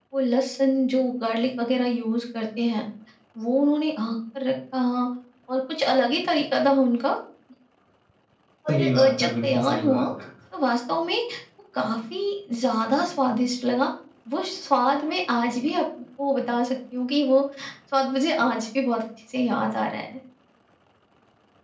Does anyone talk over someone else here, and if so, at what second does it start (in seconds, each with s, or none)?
8.7 s